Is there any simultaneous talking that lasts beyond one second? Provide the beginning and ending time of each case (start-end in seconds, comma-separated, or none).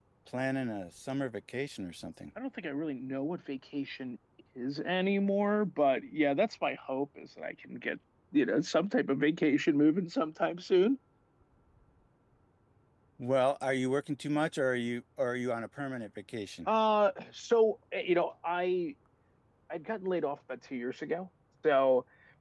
none